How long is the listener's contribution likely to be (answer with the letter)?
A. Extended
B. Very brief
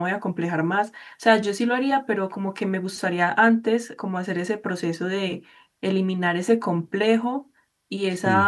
B